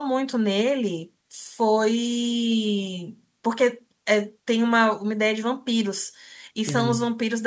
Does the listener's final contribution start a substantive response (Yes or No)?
No